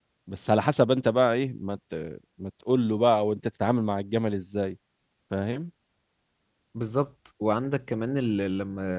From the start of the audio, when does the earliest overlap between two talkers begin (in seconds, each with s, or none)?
none